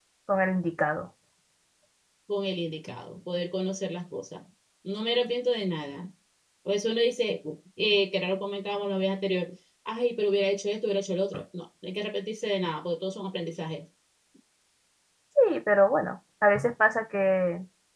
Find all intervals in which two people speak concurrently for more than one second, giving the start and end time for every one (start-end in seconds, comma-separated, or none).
none